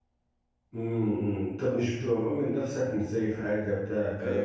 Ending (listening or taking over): taking over